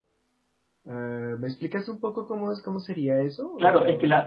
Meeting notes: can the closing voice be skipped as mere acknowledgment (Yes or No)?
No